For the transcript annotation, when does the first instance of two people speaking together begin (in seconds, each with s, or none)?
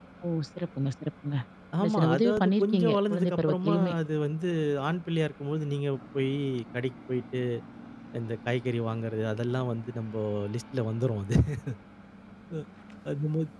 1.8 s